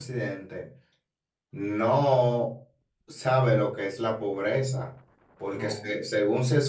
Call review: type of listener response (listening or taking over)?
listening